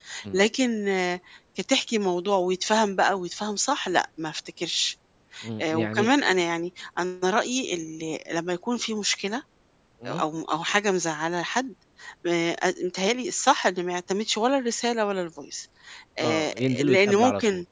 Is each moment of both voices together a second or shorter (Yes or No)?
No